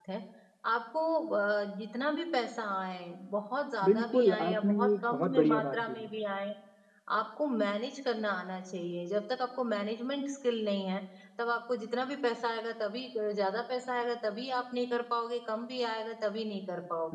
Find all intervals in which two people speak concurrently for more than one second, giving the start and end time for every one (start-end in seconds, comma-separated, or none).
3.8-6.1